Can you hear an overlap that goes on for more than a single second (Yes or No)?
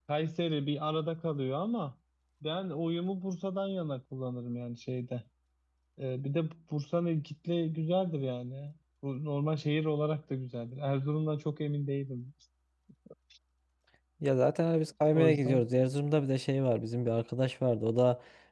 No